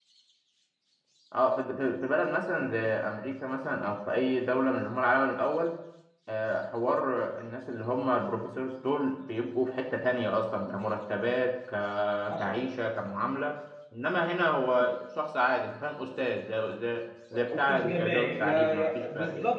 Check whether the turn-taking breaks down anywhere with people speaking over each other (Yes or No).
Yes